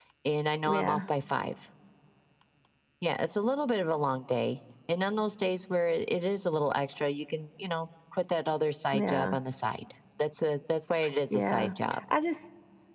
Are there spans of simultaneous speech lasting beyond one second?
No

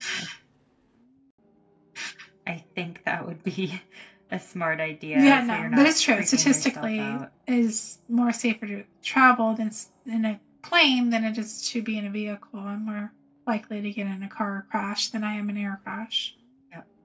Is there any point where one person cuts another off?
Yes, from 5.1 s

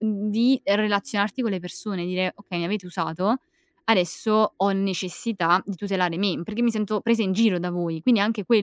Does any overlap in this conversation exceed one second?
No

